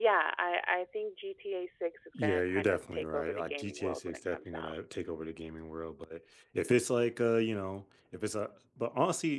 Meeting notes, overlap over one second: present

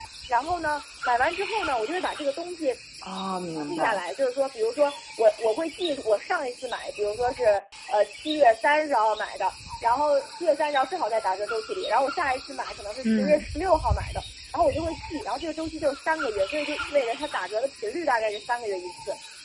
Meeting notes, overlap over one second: none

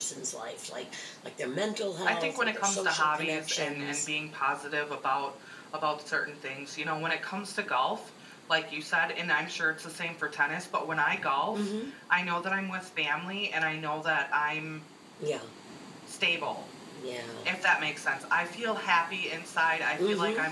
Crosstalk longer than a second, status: present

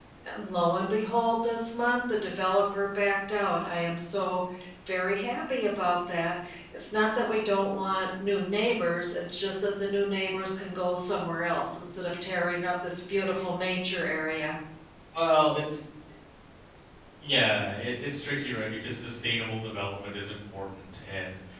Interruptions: none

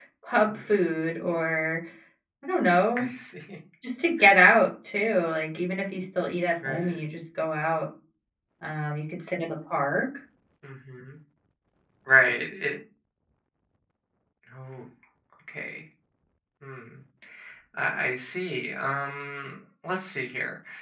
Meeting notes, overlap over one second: none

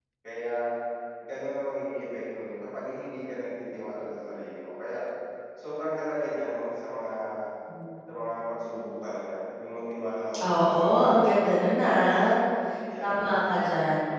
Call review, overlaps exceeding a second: present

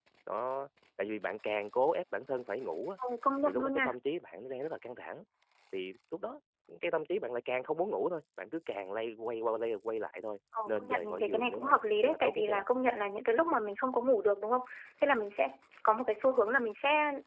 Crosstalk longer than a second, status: present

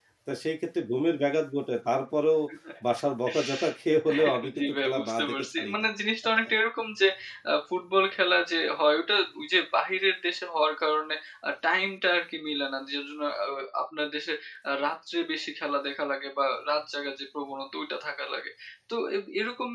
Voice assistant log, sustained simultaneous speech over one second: present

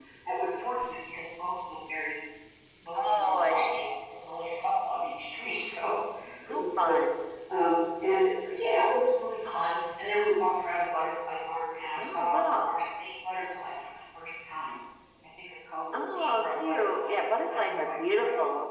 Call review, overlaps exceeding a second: present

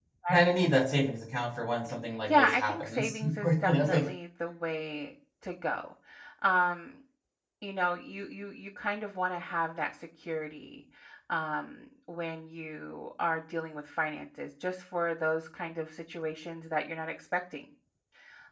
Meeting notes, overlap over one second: present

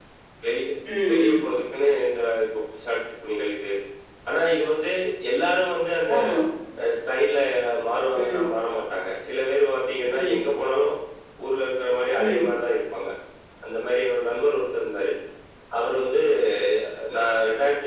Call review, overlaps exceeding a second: none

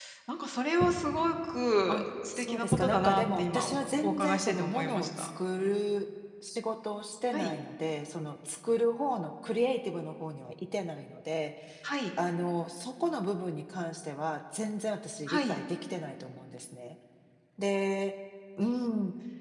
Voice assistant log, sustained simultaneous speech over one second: present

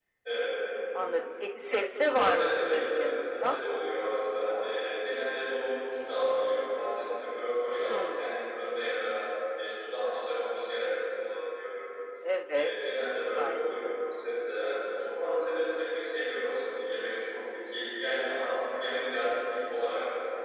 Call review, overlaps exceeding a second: present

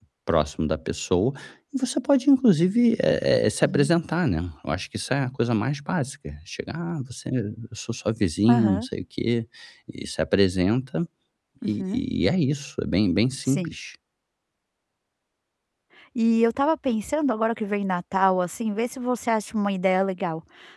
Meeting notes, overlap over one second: none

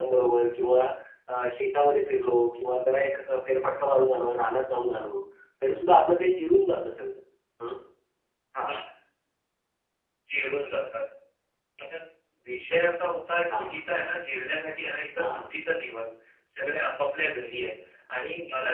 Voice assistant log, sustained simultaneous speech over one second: none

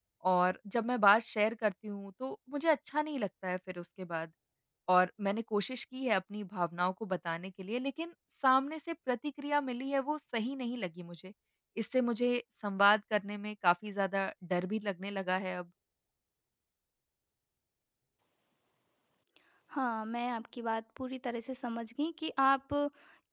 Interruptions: none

